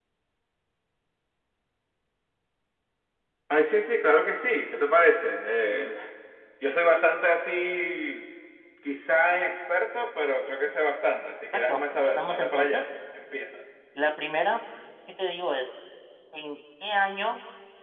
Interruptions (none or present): present